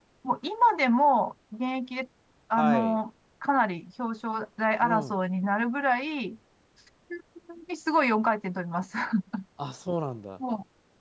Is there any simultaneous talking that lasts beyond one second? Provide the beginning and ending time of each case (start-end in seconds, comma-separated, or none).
none